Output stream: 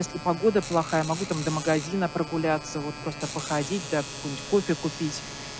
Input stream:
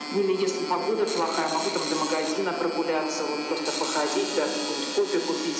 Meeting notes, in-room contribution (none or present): none